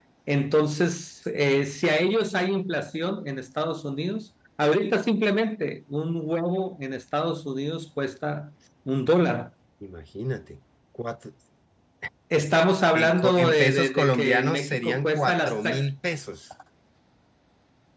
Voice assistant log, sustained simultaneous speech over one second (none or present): present